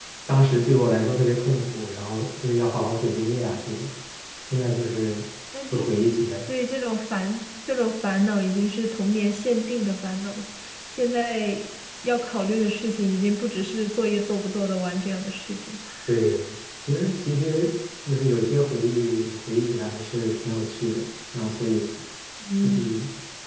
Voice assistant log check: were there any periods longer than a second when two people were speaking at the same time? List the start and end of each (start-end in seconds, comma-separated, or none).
none